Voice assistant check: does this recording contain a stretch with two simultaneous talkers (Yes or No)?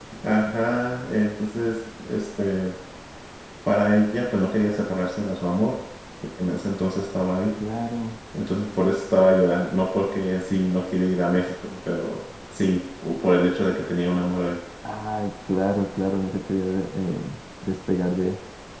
No